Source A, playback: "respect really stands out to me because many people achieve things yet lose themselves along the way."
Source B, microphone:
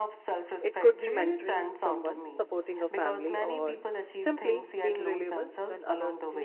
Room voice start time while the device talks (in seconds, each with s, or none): 0.6 s